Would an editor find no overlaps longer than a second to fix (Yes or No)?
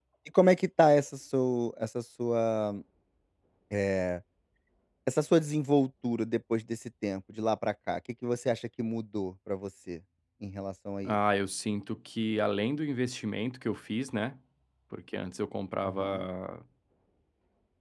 Yes